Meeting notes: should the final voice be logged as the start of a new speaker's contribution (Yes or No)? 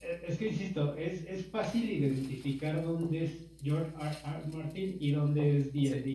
No